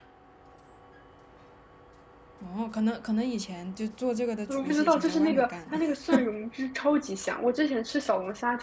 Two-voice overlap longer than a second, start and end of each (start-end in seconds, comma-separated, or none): 4.5-5.8